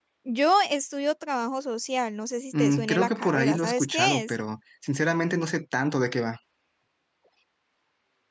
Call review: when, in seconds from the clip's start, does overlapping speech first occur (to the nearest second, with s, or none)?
3 s